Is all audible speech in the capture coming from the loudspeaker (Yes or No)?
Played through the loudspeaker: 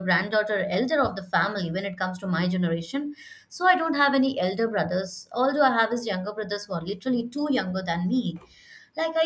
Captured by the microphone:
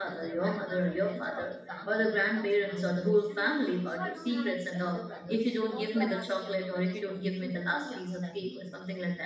No